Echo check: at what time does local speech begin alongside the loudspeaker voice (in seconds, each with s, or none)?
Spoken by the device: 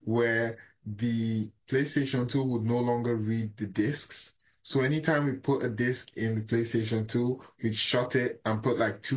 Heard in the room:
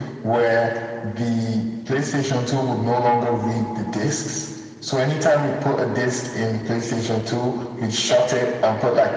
none